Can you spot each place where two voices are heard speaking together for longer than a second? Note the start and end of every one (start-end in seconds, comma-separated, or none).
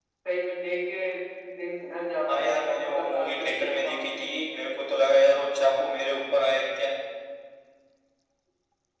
2.4-4.3